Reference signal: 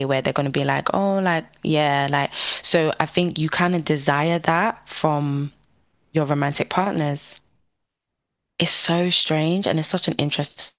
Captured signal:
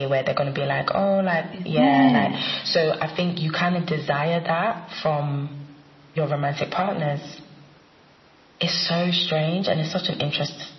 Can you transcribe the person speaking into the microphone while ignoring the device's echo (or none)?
Is it?